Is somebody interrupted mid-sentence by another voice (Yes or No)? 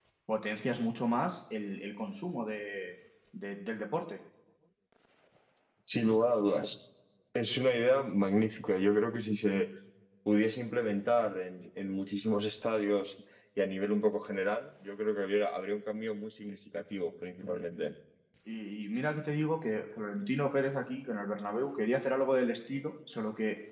No